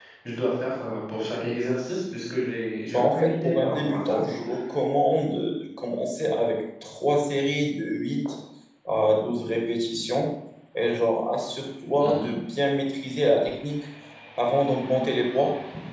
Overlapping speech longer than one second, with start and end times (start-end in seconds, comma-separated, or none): 2.9-4.2